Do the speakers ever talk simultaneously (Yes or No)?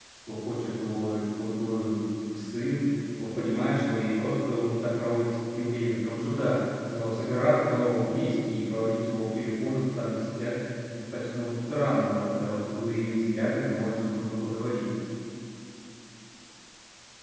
No